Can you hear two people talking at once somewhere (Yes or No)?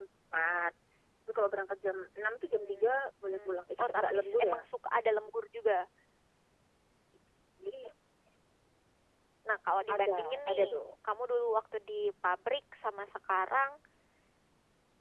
Yes